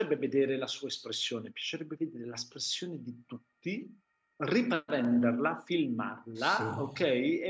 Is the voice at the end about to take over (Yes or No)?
No